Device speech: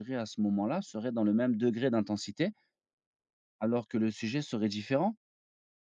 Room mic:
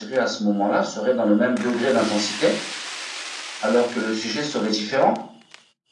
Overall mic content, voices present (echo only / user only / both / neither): echo only